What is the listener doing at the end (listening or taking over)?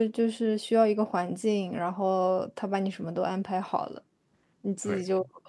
listening